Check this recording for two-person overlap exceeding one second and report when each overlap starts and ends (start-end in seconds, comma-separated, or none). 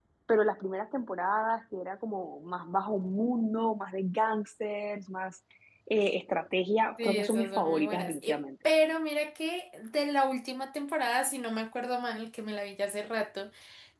7.0-8.4